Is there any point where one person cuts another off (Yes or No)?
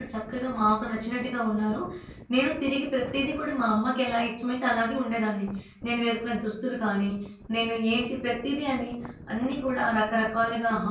No